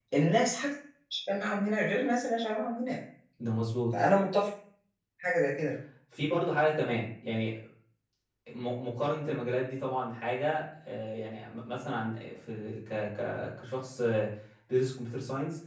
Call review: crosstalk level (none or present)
none